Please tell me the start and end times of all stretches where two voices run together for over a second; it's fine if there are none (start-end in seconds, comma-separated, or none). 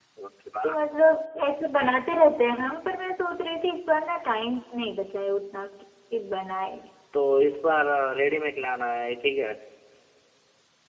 none